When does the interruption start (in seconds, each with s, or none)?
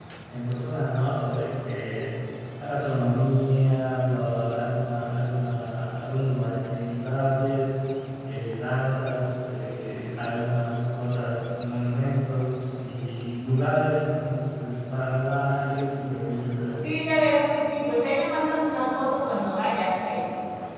none